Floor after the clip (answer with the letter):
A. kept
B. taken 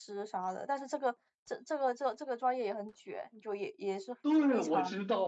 B